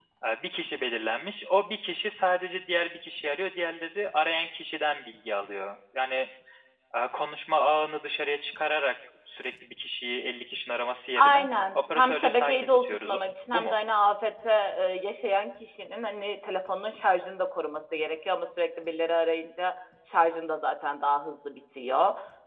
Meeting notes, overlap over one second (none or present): present